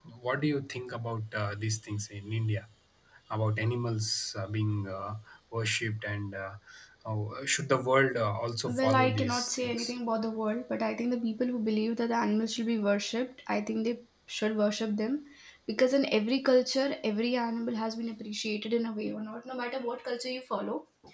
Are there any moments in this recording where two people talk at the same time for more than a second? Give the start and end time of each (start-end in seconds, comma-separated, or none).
8.7-9.9